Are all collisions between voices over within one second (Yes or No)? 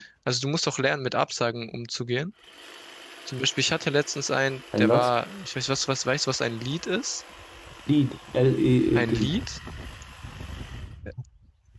Yes